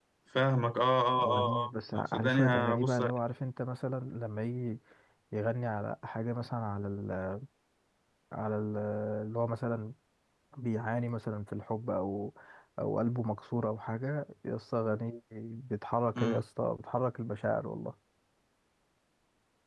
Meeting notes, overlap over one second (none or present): present